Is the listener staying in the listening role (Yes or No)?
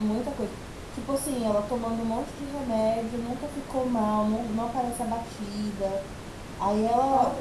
No